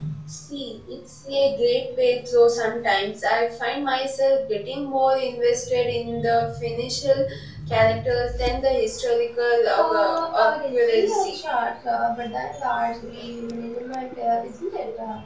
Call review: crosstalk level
present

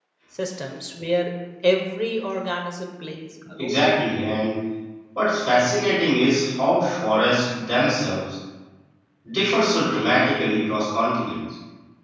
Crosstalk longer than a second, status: none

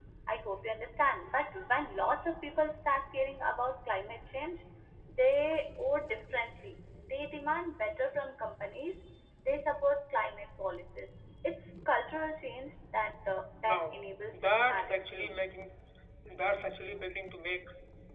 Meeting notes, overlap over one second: present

